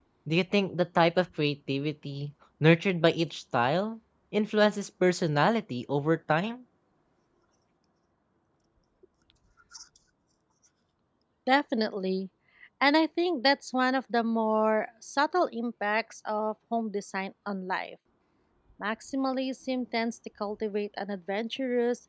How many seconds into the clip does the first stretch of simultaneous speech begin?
none

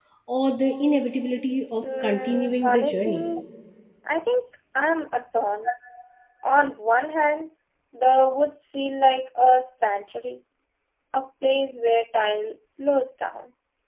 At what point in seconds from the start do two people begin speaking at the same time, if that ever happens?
1.8 s

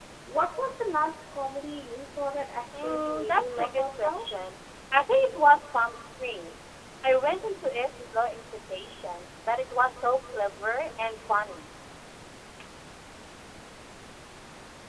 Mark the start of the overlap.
2.7 s

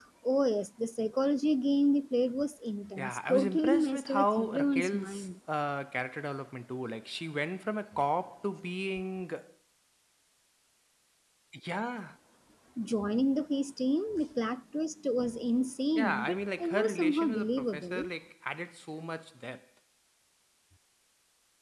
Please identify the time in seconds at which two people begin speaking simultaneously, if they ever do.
3.0 s

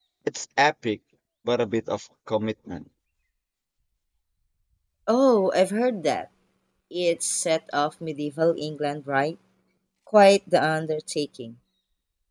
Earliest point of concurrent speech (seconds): none

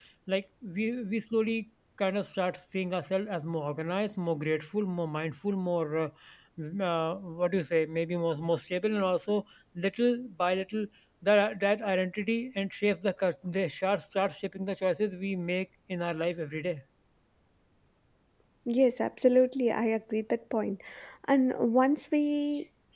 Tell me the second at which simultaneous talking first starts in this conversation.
none

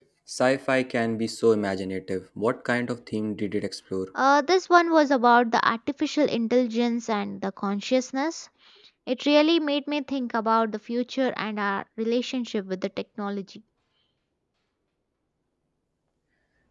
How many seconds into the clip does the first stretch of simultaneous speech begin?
none

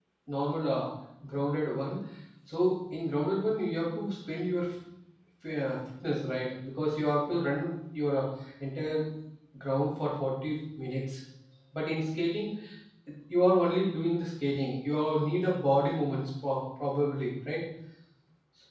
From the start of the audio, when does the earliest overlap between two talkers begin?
none

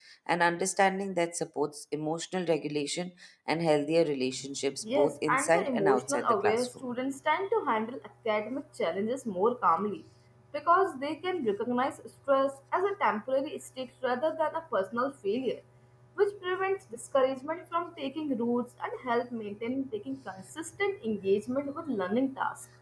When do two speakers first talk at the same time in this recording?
4.8 s

